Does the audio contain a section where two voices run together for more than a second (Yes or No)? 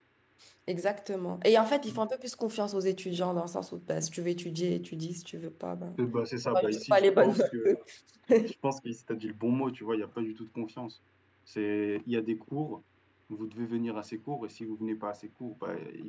Yes